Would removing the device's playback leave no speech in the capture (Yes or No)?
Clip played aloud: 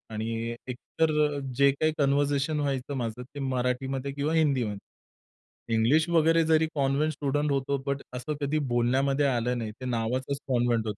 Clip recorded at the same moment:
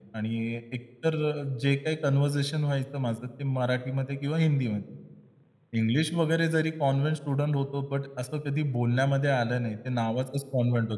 Yes